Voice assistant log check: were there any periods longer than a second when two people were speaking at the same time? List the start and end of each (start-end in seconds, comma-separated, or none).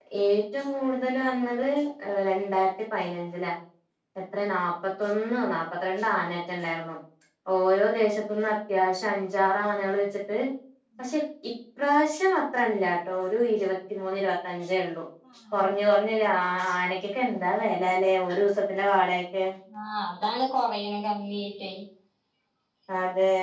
none